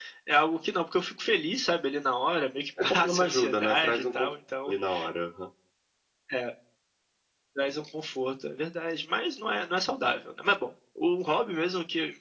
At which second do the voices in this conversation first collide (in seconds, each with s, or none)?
2.8 s